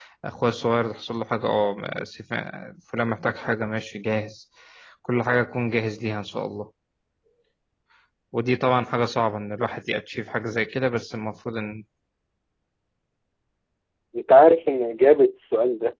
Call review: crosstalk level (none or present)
none